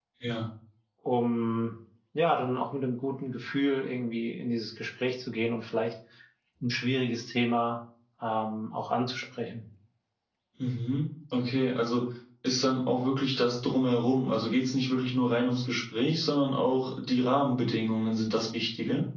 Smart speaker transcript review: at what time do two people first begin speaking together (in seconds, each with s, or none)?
none